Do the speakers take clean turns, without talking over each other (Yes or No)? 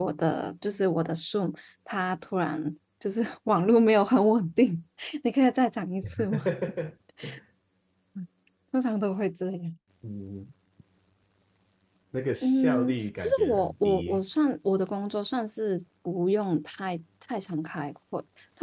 No